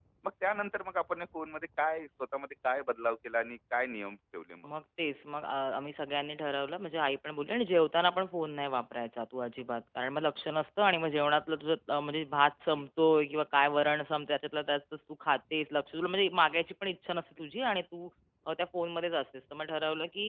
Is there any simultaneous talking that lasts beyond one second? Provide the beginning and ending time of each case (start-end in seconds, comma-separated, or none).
none